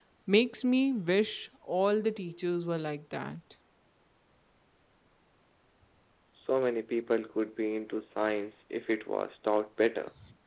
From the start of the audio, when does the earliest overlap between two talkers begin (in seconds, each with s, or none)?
none